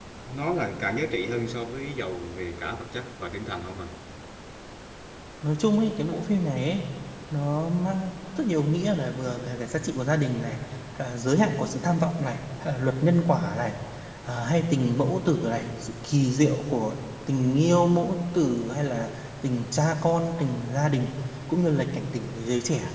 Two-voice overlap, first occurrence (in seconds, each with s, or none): none